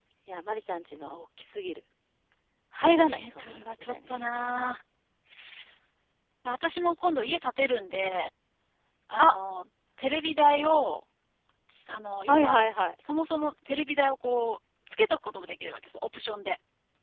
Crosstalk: present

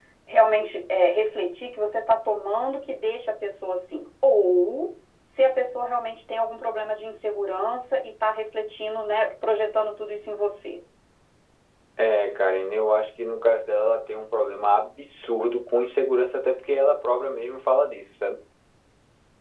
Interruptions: none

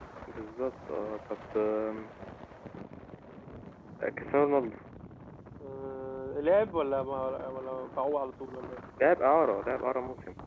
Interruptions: none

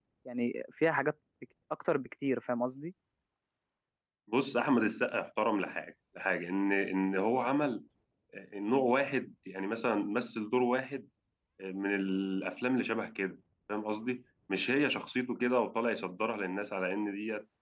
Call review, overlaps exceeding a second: none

